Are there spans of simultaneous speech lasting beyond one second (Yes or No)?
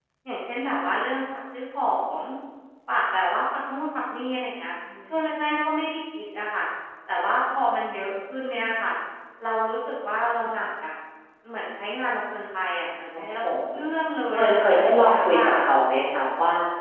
Yes